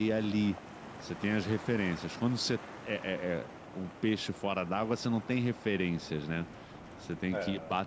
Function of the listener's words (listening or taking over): listening